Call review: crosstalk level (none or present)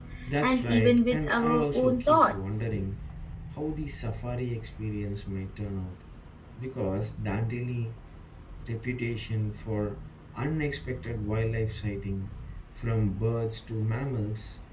present